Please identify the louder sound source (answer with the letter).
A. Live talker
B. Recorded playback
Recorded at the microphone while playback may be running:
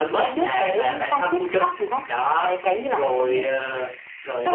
B